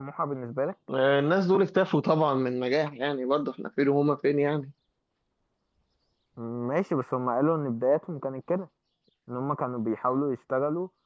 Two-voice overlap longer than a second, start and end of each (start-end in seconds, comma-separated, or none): none